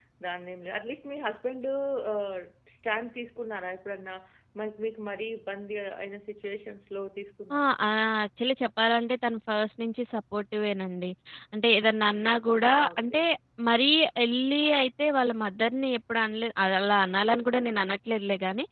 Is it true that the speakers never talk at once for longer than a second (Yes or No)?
Yes